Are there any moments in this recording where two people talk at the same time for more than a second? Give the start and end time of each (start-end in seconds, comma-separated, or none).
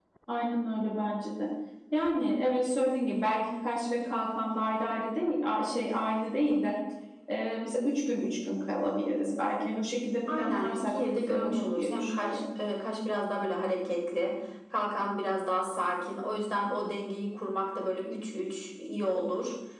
10.3-12.4